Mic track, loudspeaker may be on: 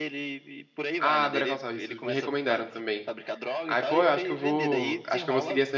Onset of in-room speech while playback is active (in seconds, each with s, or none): 1.0 s